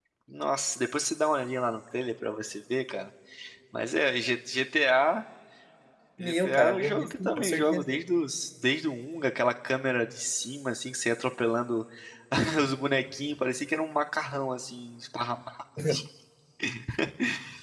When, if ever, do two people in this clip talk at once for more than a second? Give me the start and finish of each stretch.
6.2-8.0

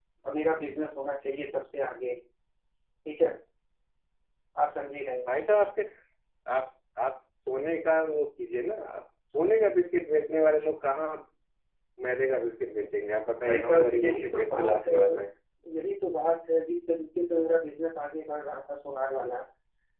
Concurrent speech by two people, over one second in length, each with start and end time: 13.4-14.9

